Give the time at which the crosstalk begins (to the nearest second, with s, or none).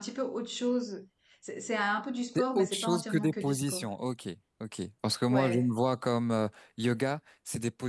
2 s